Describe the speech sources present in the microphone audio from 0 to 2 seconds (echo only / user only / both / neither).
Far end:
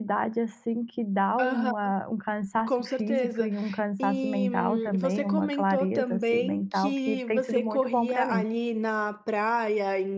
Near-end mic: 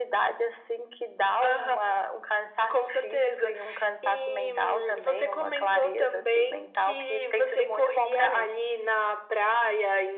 echo only